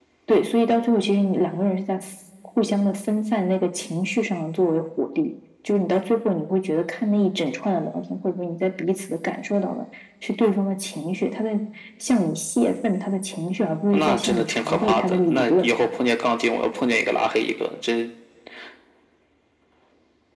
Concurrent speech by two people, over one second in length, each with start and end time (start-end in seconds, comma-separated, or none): 13.9-15.7